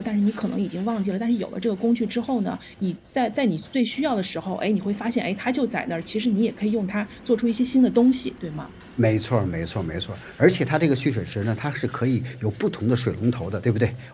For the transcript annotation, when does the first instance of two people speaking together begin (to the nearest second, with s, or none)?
none